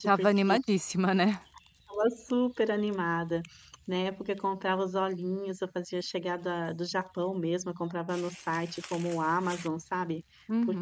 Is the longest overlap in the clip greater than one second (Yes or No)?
No